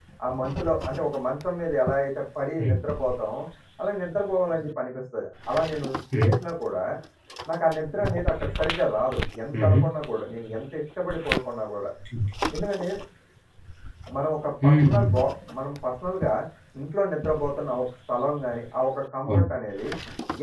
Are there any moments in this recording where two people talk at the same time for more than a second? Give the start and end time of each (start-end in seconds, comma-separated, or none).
none